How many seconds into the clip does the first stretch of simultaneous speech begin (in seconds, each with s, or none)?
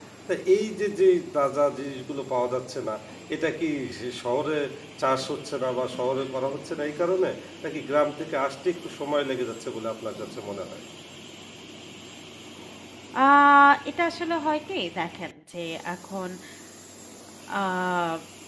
none